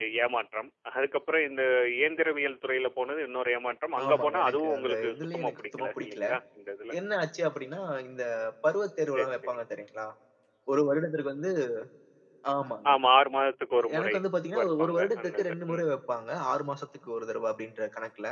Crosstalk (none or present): present